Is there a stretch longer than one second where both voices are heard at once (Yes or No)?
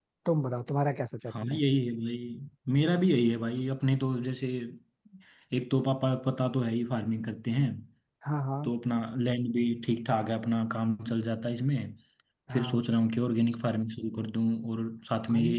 No